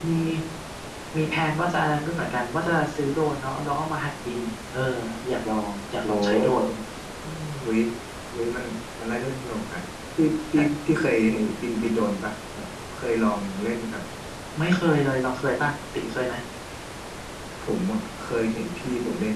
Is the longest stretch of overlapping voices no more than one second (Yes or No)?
Yes